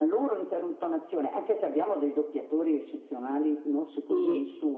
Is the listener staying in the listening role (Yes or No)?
Yes